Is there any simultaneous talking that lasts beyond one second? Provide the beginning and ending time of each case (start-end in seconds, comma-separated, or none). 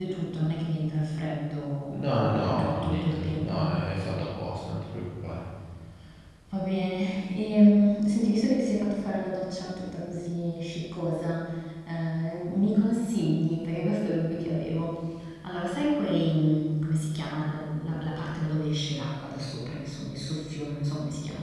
2.0-3.7